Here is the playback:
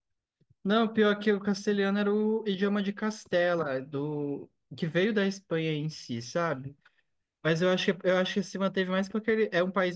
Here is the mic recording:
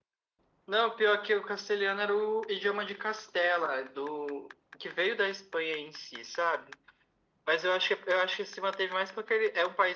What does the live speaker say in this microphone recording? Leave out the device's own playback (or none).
none